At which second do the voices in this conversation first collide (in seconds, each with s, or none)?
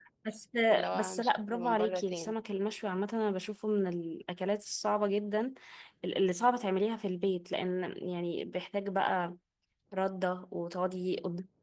0.9 s